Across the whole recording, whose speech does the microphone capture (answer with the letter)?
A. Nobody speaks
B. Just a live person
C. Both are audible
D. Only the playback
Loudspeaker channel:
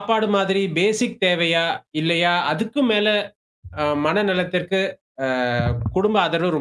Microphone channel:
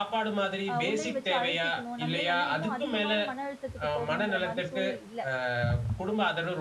C